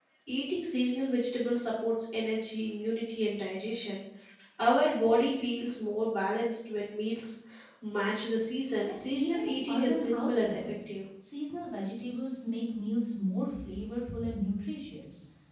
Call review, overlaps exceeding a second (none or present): present